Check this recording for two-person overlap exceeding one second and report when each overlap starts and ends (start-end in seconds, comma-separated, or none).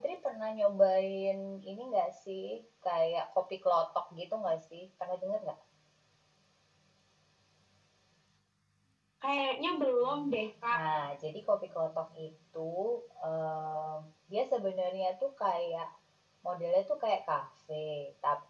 none